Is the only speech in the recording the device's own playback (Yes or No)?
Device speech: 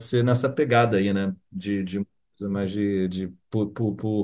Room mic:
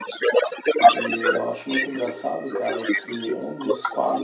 No